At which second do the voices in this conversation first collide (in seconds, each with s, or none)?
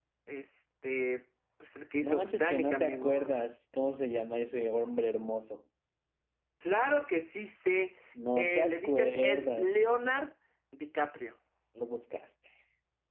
2.0 s